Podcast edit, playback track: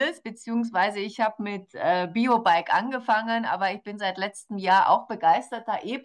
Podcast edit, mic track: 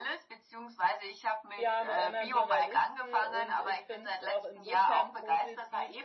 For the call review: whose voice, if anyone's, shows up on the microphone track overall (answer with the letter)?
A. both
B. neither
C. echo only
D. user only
A